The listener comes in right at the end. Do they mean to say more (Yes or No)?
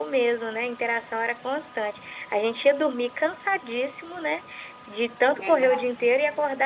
No